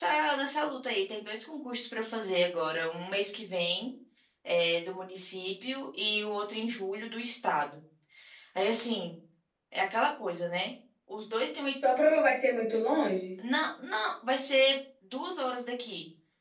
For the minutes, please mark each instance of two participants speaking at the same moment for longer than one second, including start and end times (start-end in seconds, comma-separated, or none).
none